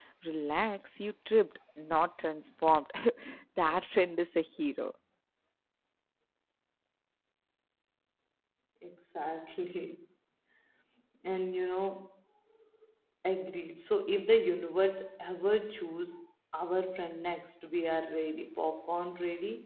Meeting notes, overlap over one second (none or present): none